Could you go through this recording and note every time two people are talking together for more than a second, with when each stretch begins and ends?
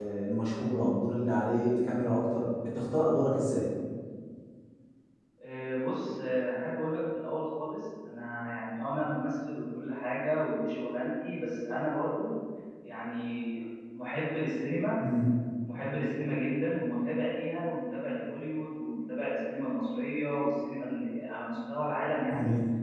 none

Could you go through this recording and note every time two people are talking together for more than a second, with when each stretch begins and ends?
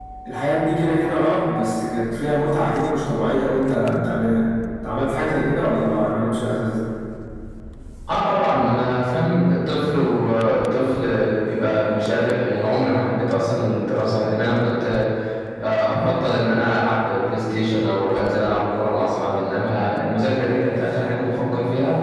none

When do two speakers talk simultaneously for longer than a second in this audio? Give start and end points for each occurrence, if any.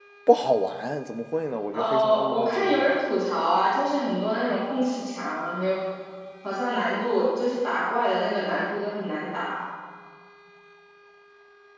1.7-3.1

